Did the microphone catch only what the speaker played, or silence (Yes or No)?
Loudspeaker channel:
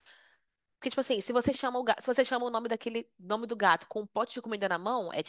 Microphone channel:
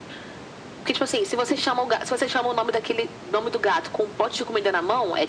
Yes